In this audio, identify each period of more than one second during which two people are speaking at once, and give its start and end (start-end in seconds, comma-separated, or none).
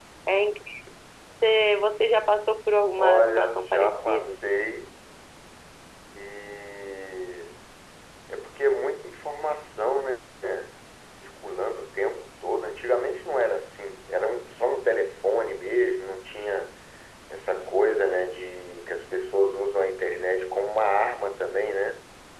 2.9-4.4